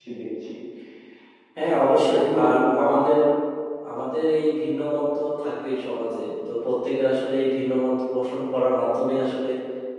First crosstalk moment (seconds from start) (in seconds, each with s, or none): 1.8 s